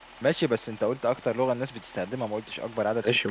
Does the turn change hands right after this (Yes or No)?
Yes